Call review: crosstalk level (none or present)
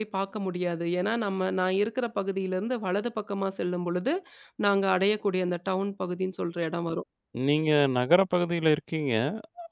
none